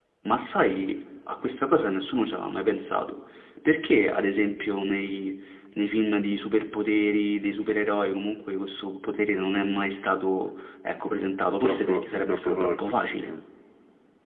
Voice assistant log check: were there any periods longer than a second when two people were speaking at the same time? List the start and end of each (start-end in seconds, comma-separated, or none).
11.5-13.3